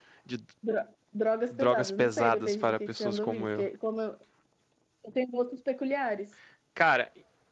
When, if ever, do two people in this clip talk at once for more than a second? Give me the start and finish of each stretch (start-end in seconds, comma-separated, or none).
1.5-3.7